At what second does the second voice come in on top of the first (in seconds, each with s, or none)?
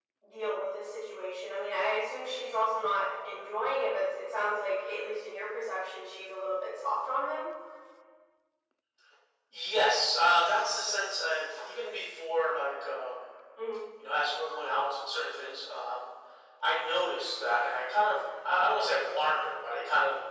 none